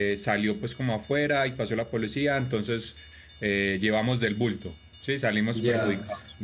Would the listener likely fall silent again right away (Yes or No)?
No